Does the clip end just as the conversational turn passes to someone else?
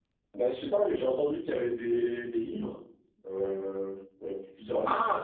Yes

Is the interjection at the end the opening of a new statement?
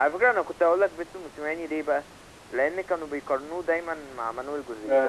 Yes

